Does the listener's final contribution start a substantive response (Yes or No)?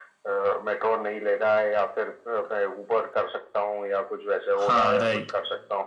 Yes